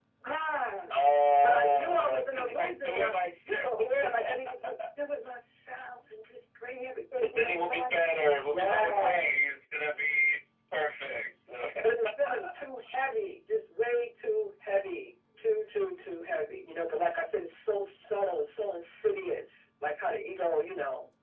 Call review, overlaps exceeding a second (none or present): present